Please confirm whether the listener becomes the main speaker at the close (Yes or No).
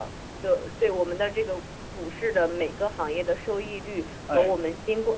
No